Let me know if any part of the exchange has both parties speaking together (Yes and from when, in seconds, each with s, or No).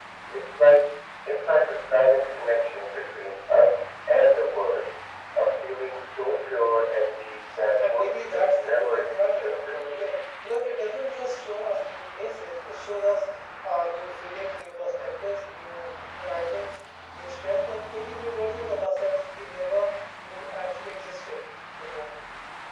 Yes, from 7.9 s